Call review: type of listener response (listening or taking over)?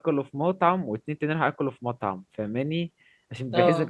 listening